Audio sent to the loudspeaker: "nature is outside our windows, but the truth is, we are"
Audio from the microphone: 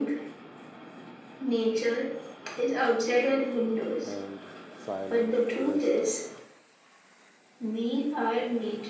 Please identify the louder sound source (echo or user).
echo